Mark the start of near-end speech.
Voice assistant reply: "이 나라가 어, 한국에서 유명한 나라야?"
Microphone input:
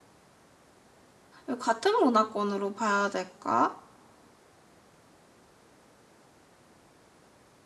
1.4 s

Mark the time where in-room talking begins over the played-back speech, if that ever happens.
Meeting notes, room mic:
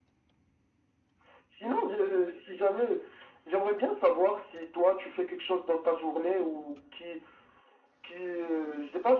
none

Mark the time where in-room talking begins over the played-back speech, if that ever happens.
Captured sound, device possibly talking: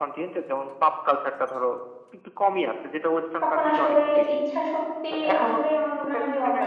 3.4 s

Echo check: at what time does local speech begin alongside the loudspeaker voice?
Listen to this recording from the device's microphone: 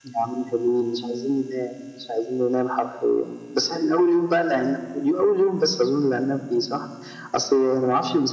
none

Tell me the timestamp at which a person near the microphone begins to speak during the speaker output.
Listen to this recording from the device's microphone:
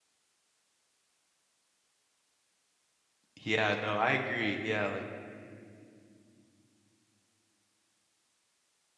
3.4 s

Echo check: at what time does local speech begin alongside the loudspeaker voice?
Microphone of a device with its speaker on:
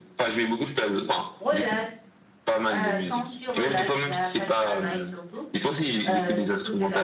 1.4 s

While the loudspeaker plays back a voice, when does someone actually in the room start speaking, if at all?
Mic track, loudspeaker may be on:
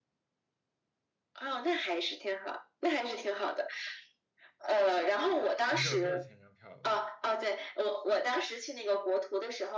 5.7 s

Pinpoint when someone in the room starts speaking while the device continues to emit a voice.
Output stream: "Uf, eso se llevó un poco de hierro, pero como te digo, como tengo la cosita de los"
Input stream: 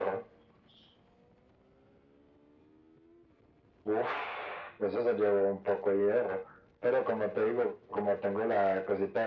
none

